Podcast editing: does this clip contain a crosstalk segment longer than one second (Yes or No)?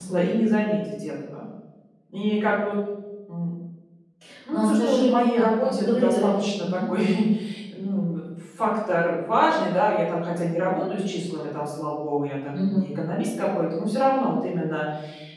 Yes